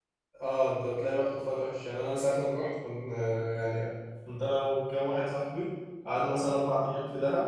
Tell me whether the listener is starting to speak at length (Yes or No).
No